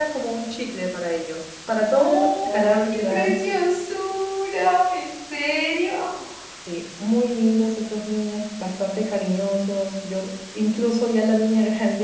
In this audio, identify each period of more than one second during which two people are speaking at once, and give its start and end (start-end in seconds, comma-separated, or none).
2.0-3.4